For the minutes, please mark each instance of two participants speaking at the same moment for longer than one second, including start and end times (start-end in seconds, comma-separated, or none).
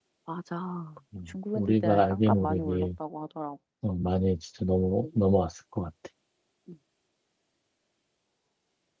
1.3-2.9